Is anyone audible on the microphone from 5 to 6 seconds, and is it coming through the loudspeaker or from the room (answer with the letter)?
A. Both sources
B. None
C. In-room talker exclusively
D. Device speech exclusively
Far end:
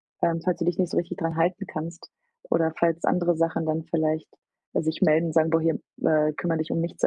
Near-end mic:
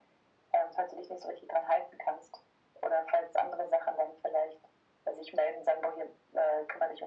D